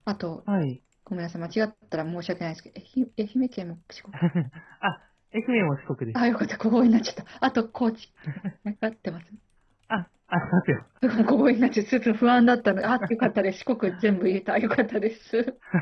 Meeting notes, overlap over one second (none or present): none